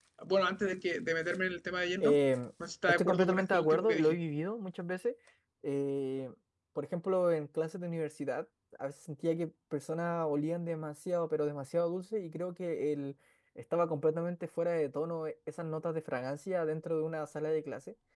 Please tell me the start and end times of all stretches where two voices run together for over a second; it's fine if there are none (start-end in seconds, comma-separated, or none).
2.9-4.2